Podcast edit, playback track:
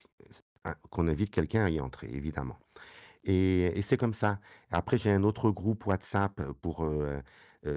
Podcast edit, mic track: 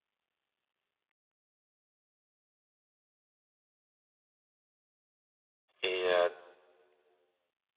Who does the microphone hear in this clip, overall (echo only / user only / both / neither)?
user only